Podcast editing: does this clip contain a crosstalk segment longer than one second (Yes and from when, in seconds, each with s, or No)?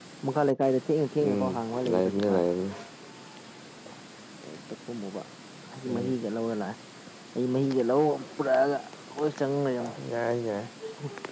No